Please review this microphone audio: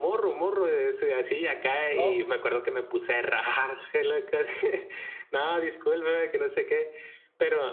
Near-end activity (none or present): present